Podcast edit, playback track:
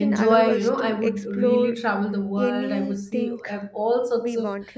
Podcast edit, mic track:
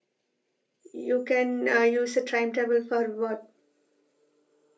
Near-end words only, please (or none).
you can uh, use a time travel for what